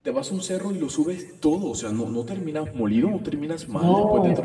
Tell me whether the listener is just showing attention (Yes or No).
No